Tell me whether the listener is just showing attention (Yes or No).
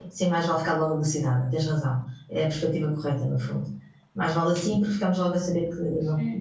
No